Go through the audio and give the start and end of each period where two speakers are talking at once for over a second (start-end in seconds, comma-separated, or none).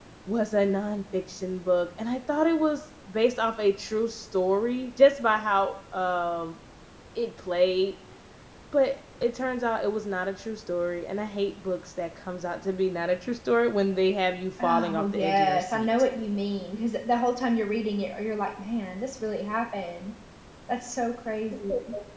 14.6-15.9